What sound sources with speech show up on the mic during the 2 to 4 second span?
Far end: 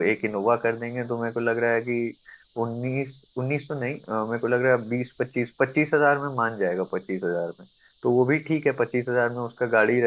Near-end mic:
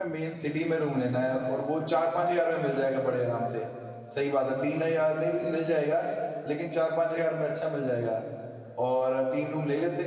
user only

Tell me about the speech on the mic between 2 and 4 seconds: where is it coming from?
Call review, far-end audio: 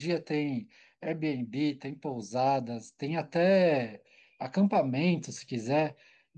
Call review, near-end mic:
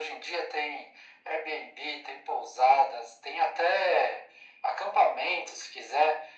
echo only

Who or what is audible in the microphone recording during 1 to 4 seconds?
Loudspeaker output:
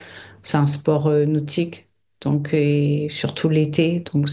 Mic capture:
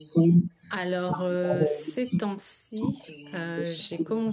both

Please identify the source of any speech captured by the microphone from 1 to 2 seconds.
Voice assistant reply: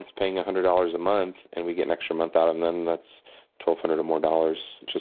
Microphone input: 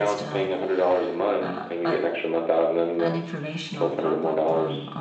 both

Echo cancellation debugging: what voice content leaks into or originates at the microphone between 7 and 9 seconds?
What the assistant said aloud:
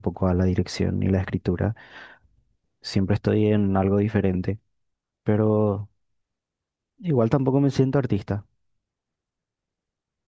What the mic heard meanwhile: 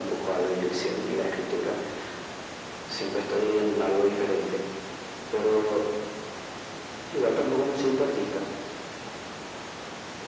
echo only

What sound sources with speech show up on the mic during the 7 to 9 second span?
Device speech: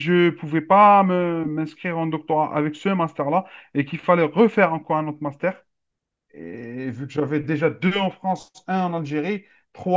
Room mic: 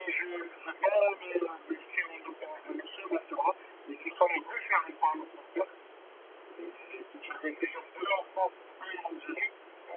echo only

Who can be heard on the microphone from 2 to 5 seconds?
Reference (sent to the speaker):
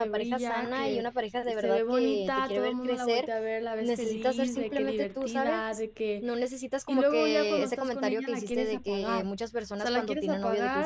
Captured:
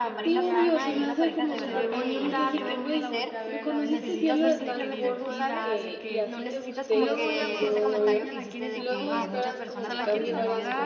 both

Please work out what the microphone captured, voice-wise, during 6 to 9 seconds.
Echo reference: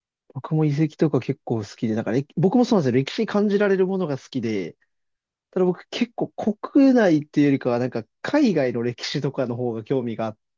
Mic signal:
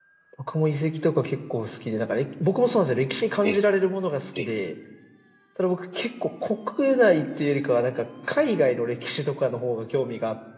echo only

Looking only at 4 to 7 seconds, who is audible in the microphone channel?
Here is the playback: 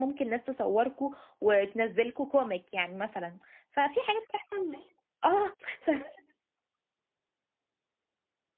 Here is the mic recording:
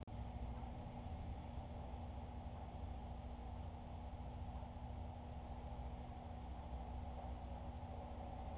neither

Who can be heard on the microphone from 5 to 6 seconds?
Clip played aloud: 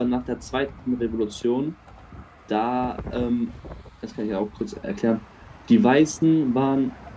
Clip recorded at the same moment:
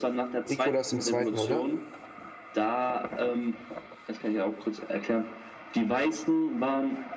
echo only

